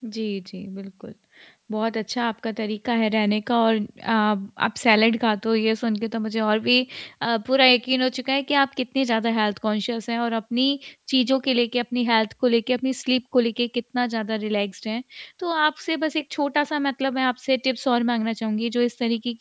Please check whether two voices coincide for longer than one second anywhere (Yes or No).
No